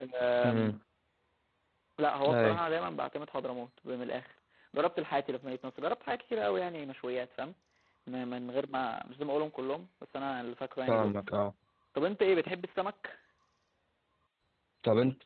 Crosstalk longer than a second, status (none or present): none